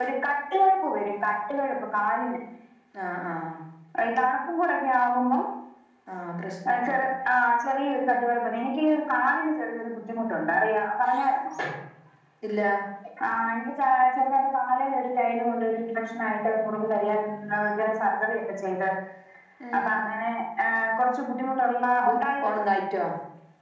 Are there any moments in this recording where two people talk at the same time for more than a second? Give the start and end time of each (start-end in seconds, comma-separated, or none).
none